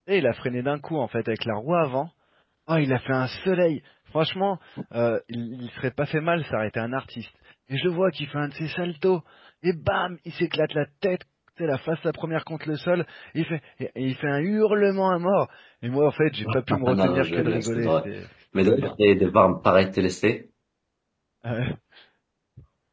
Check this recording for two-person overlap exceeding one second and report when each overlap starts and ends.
16.7-18.1

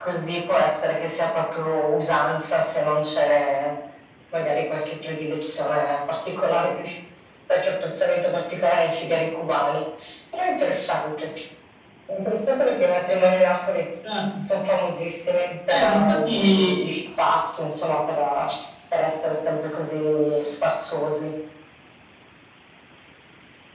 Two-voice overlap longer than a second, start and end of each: 15.7-16.9

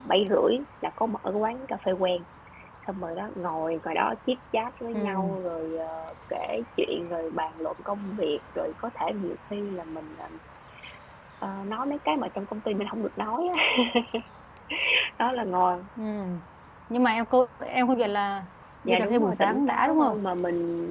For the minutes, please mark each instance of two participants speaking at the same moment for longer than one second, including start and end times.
18.9-20.2

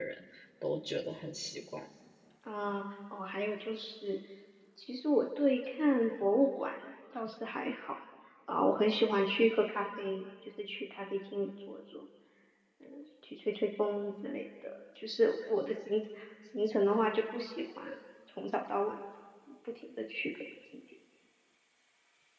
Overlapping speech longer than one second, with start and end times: none

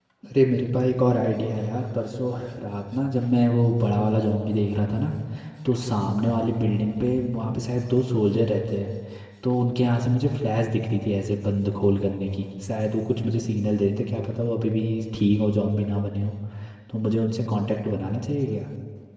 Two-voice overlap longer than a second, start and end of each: none

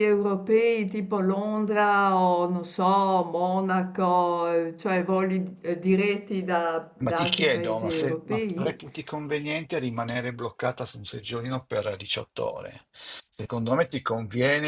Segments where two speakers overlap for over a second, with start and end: 7.1-8.8

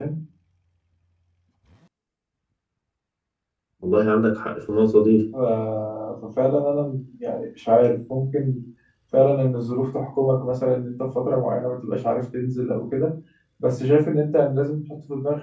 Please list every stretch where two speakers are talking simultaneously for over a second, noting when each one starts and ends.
none

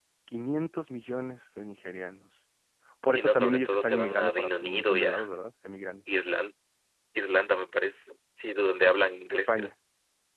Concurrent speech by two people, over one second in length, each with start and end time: 3.1-5.2

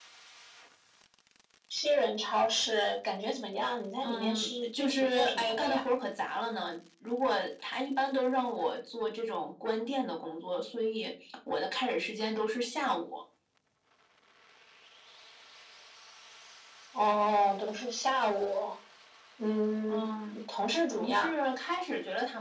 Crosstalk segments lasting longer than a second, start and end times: 4.0-5.8

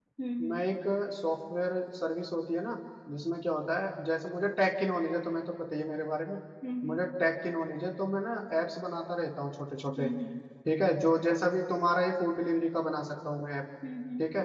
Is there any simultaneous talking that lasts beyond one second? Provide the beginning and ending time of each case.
none

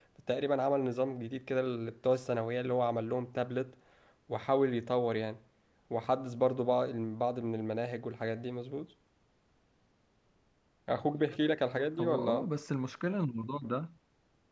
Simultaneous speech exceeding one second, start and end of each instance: none

